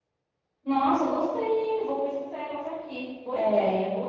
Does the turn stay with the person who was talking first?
No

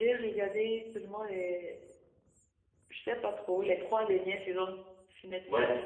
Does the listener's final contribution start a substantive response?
Yes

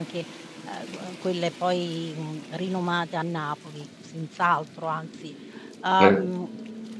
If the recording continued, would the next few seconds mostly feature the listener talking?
No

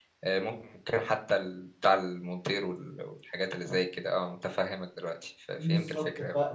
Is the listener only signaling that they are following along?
No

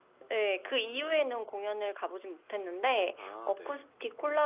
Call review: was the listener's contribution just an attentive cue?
Yes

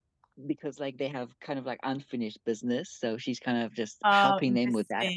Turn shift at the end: Yes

